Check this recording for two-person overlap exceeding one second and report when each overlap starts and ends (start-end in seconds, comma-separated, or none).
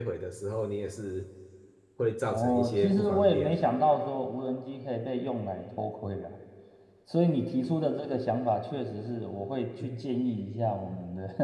2.3-3.7